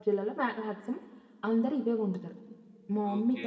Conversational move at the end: taking over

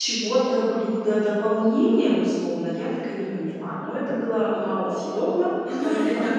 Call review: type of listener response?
taking over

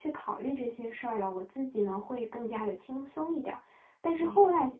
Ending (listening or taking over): listening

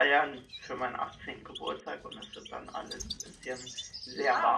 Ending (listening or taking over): taking over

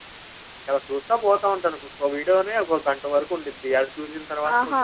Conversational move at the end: taking over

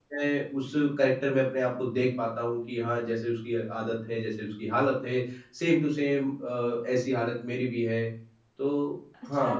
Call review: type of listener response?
taking over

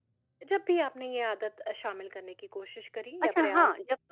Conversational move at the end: taking over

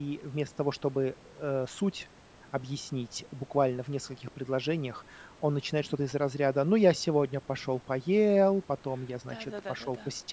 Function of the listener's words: taking over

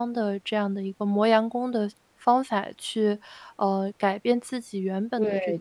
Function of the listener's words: taking over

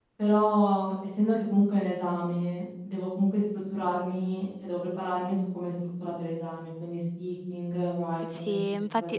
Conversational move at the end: taking over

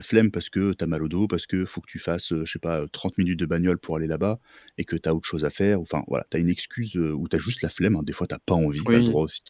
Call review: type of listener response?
taking over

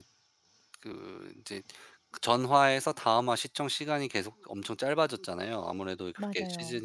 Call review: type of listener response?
listening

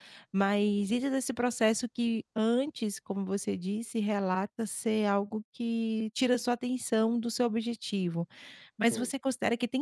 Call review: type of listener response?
listening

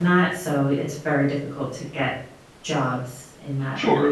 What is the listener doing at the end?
taking over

